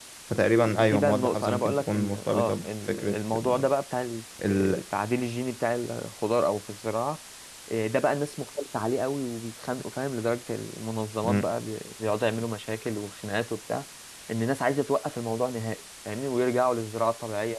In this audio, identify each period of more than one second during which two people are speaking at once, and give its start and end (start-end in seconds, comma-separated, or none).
0.7-3.7